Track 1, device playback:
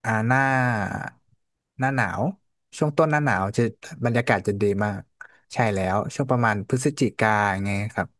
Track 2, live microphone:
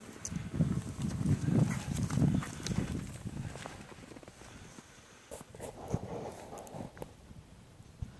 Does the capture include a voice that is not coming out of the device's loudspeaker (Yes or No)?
No